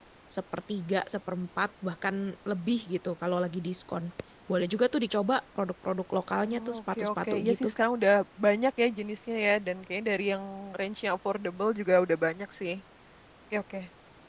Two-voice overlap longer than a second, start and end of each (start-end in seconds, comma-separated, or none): 6.5-7.7